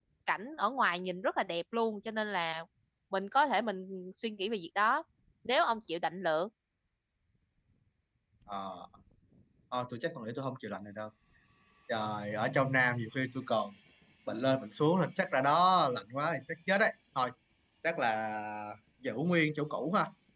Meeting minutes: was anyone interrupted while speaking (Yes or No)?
No